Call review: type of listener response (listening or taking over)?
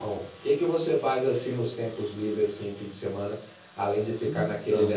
listening